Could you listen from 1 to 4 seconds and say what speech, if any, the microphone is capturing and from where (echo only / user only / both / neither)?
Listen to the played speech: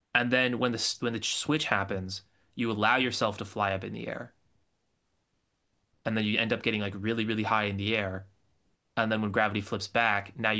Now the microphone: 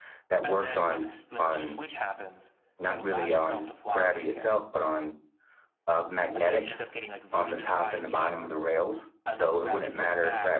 both